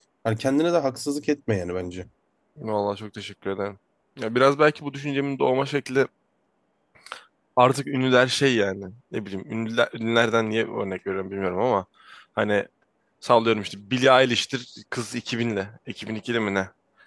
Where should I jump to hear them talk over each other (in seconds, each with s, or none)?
none